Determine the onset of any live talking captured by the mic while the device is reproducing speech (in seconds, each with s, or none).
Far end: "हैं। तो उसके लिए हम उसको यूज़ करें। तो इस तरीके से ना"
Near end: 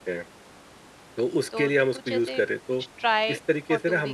1.5 s